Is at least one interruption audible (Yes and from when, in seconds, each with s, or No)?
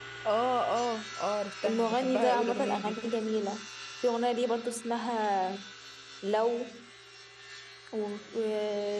Yes, from 1.6 s